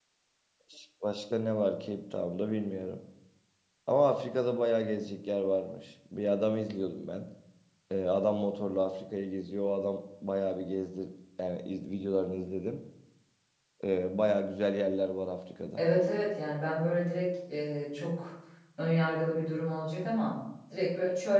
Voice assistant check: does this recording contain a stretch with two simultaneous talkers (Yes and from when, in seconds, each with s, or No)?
No